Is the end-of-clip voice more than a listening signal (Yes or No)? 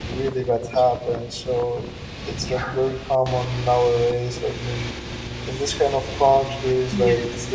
No